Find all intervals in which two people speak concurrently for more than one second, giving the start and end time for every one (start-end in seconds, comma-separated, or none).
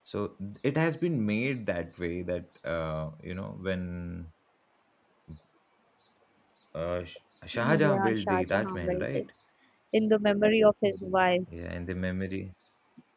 7.8-9.3